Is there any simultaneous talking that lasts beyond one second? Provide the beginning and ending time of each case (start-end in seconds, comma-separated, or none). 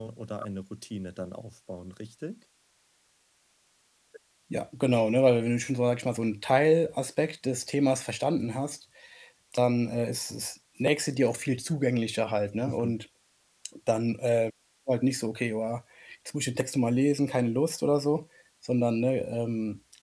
none